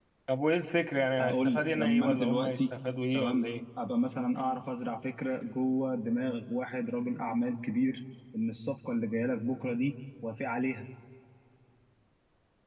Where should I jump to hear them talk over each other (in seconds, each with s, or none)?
1.2 s